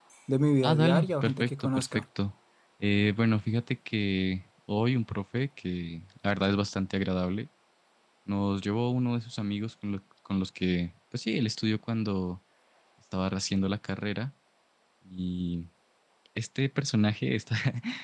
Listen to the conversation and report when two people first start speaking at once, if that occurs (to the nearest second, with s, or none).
1 s